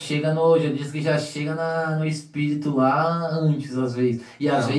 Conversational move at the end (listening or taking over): listening